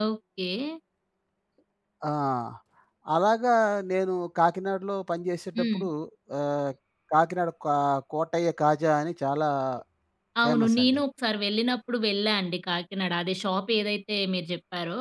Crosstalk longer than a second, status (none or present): none